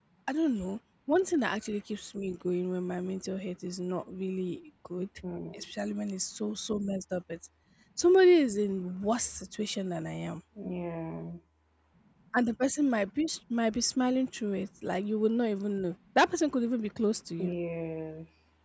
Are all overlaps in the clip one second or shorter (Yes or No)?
Yes